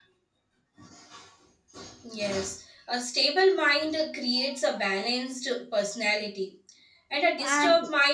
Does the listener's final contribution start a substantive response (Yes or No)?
No